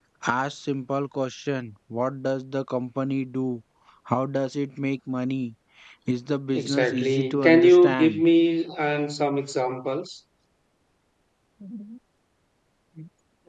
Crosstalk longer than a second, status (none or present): present